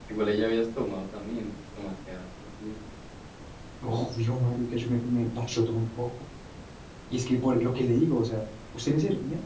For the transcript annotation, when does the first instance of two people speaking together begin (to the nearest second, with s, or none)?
none